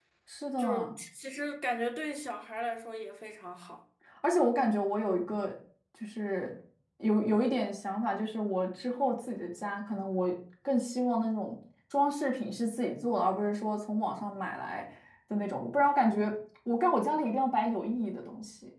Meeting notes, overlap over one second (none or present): none